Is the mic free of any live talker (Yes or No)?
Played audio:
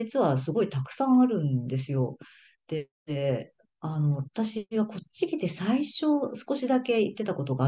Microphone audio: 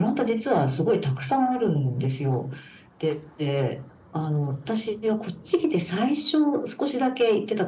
Yes